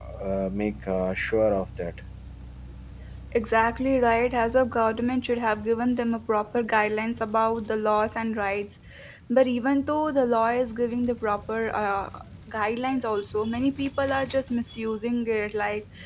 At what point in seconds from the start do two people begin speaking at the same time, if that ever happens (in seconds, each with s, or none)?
none